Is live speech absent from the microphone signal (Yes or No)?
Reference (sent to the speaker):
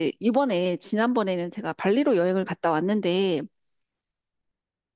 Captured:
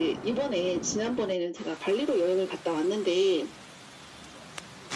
Yes